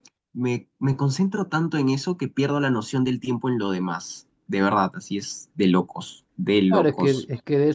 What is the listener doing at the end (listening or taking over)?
taking over